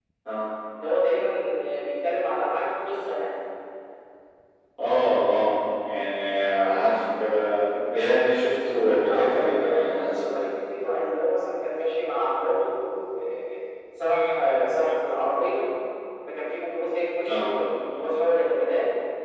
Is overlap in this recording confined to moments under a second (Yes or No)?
No